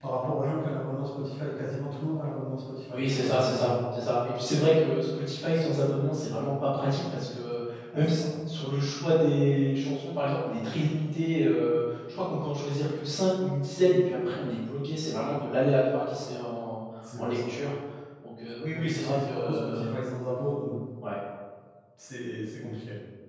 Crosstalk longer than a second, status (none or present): present